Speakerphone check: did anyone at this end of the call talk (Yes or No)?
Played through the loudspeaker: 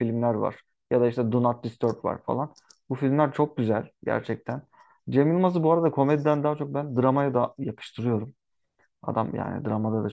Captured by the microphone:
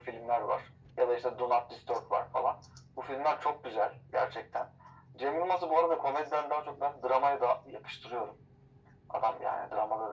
No